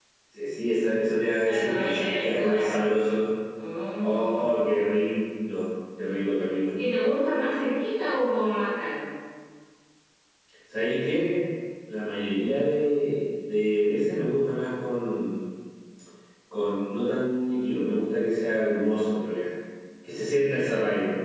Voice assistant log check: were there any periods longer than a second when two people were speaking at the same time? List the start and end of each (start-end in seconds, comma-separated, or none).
1.4-2.7